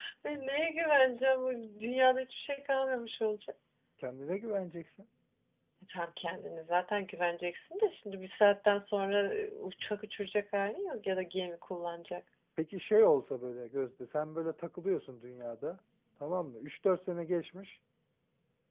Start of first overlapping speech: none

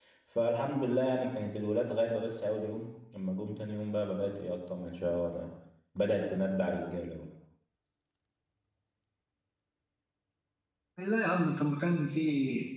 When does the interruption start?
none

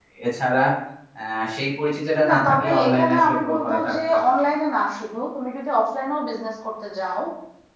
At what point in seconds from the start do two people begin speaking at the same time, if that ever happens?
2.2 s

